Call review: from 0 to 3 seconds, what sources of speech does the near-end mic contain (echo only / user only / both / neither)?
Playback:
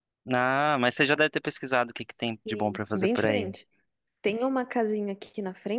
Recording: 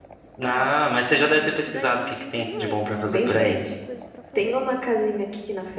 both